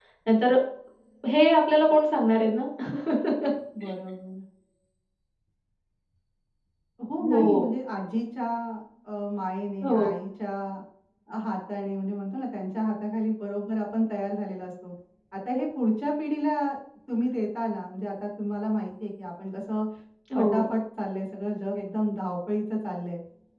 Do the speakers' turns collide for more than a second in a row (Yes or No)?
No